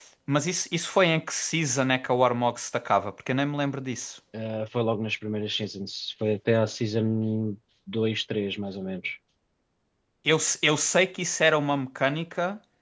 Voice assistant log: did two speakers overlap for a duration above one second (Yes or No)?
No